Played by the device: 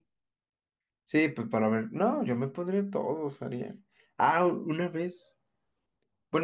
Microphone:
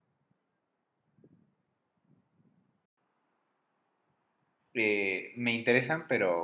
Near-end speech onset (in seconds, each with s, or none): 4.7 s